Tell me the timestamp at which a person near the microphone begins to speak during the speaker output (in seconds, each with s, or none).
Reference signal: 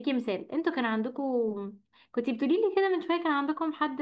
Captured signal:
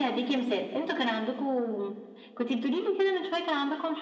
none